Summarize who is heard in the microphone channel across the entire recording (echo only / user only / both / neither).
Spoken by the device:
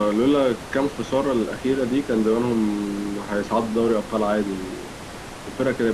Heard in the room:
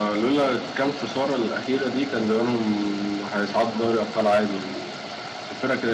echo only